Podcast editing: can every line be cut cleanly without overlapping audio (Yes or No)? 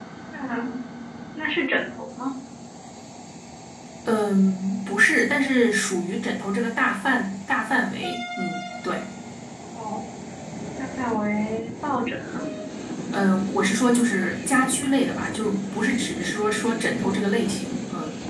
Yes